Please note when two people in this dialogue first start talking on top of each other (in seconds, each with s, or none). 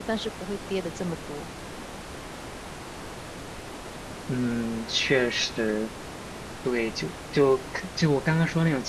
none